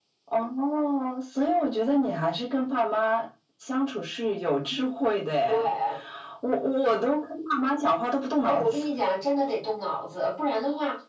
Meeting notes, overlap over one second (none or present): none